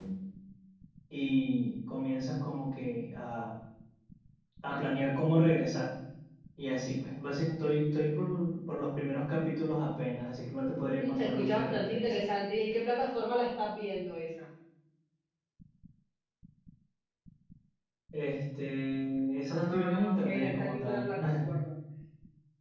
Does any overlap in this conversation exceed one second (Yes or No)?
Yes